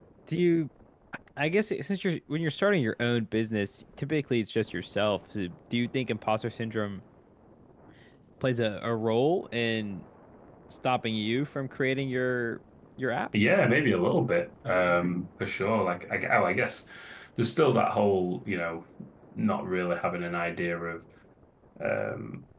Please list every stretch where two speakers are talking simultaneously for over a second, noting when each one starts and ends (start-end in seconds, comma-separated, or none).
none